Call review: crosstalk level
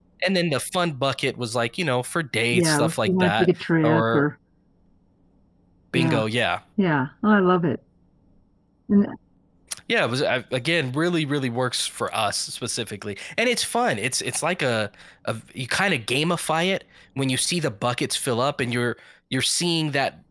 present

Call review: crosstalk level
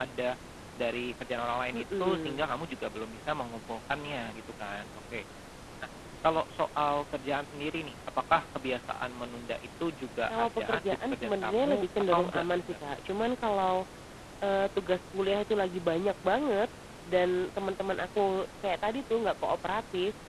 present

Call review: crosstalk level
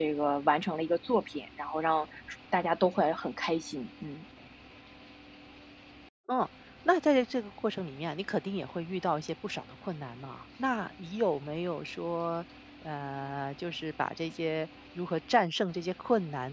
none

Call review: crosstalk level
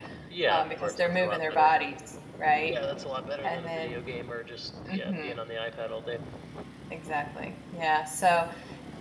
present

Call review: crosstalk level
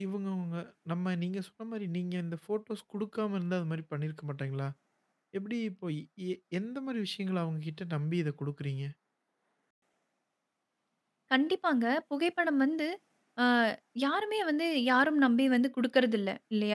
none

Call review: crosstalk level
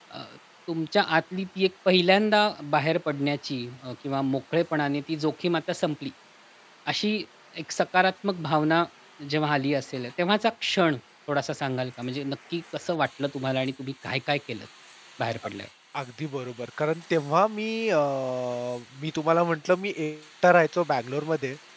none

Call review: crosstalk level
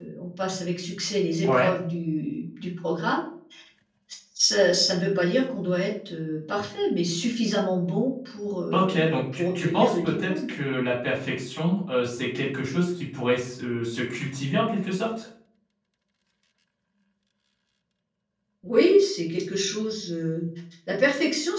present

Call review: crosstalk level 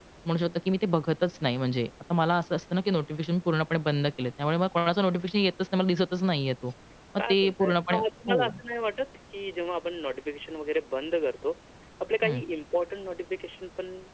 present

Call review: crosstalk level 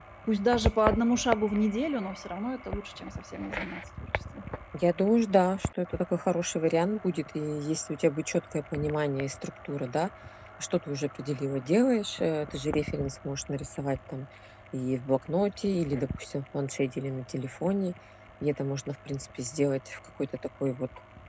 none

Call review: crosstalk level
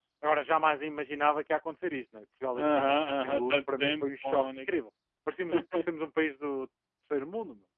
present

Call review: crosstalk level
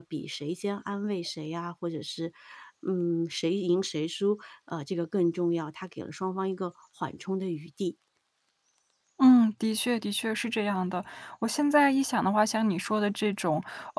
none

